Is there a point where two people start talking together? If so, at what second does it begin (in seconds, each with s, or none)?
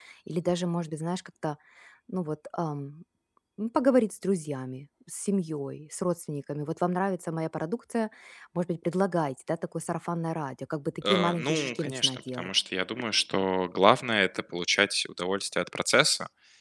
11.0 s